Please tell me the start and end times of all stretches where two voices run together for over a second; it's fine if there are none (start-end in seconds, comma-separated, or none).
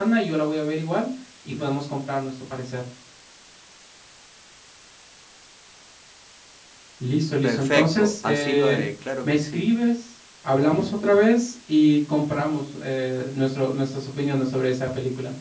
7.4-8.8